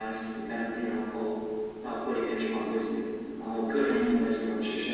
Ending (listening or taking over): listening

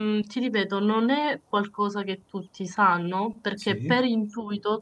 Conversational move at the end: listening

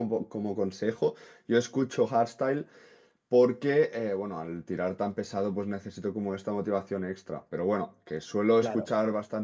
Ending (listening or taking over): listening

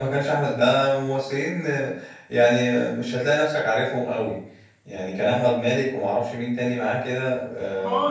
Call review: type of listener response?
taking over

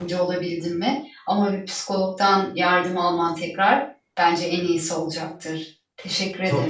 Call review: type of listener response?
taking over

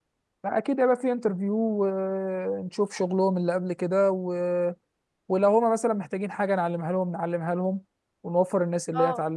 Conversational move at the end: listening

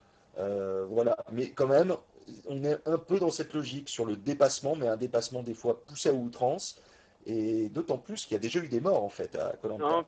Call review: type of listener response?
taking over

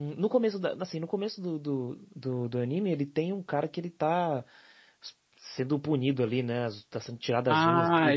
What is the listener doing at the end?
taking over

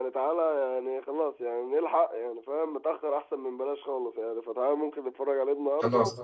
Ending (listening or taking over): listening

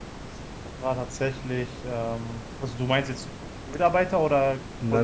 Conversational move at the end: taking over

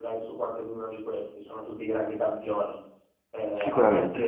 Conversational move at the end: listening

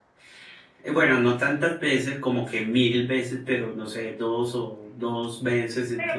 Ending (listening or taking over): taking over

